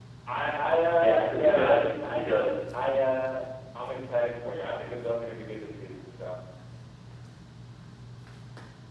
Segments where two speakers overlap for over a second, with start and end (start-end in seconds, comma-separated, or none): 1.0-2.4